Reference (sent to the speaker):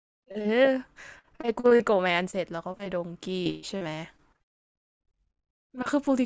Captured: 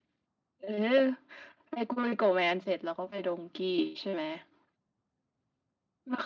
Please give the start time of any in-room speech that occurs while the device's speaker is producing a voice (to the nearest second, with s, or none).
none